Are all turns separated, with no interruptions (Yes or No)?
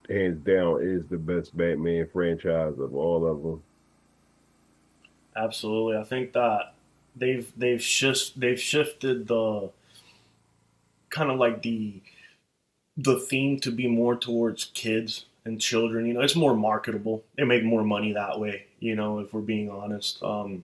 Yes